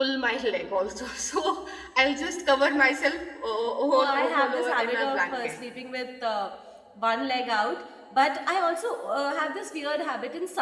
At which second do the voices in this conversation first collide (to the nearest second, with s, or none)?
4 s